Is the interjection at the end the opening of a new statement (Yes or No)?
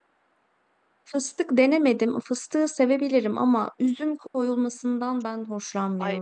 Yes